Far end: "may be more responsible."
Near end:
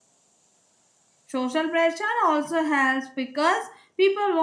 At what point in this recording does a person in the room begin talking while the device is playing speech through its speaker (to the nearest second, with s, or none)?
1 s